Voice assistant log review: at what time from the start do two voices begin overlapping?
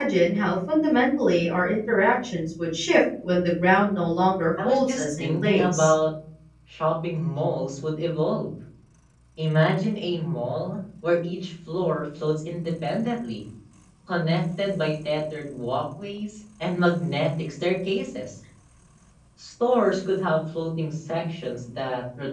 4.6 s

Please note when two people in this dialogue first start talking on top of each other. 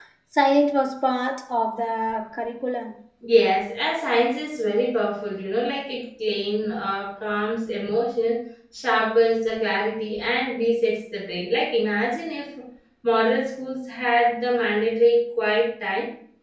none

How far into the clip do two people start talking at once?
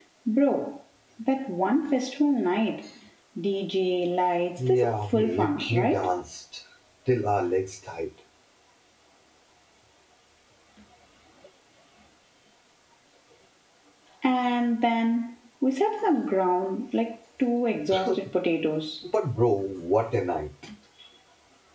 4.6 s

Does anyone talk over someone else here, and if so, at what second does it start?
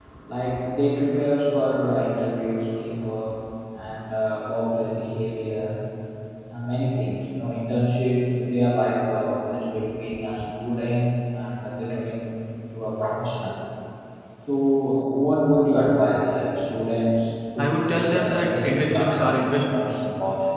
17.6 s

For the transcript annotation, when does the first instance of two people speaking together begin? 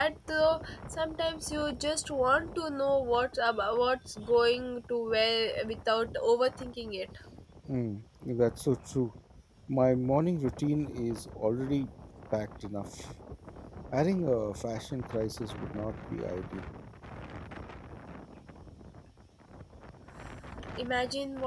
none

